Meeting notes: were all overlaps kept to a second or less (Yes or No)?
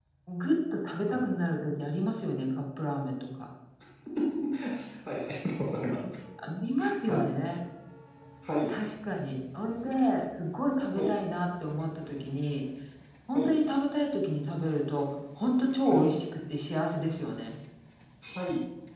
Yes